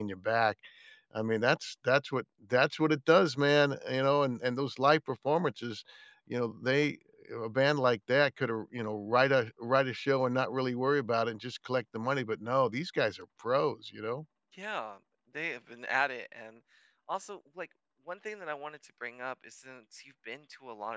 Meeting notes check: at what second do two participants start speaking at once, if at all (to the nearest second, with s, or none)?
none